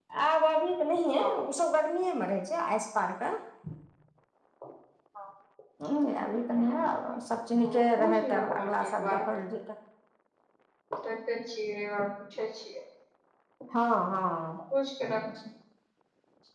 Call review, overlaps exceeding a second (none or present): present